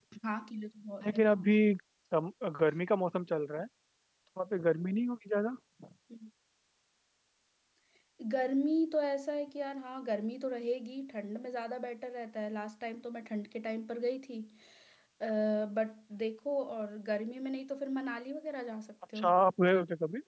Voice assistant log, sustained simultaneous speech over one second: none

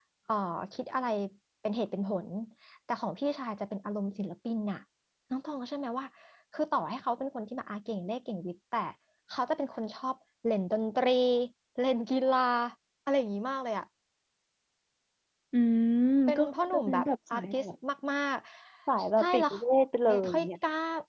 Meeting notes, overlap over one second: present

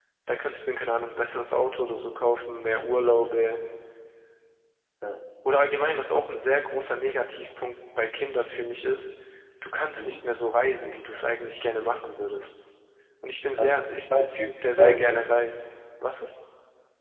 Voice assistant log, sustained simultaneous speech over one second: present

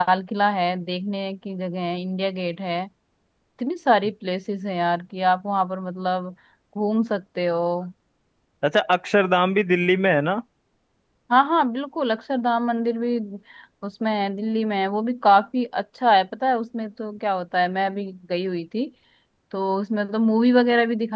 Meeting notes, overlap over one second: none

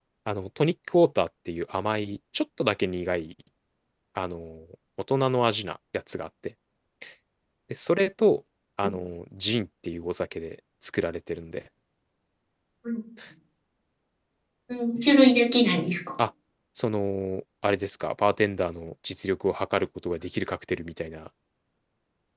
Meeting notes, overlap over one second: none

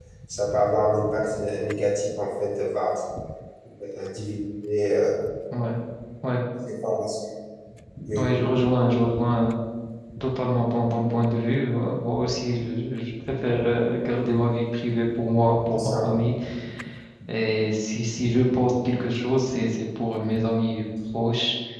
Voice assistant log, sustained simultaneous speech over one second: none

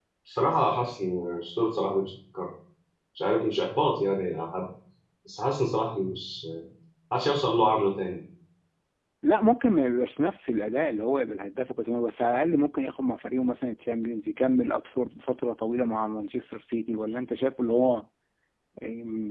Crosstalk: none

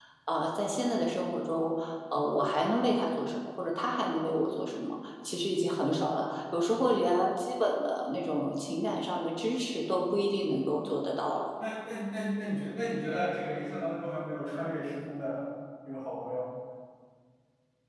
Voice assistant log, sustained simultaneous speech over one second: none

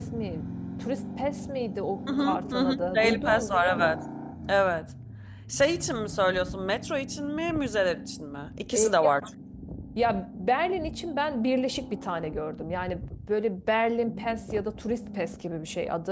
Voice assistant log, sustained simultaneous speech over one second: present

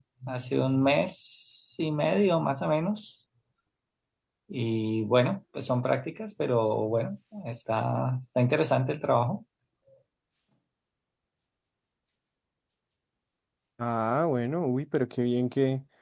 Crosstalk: none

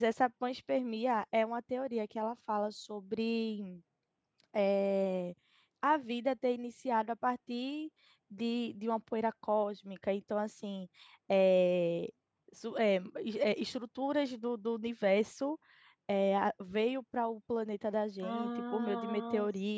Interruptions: present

